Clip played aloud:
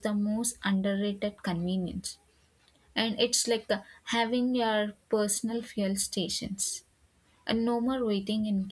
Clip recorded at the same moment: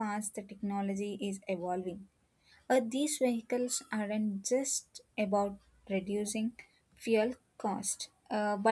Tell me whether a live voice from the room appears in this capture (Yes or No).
Yes